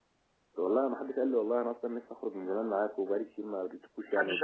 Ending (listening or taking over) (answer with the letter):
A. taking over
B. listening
A